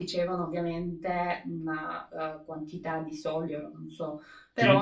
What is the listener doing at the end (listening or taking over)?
listening